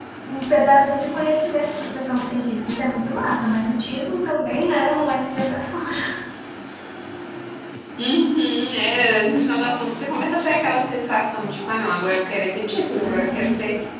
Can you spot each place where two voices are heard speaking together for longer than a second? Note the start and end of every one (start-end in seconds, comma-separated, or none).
none